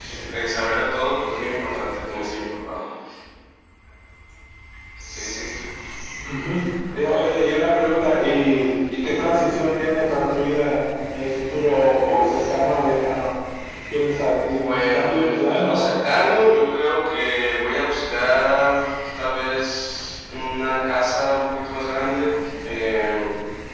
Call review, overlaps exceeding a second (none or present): present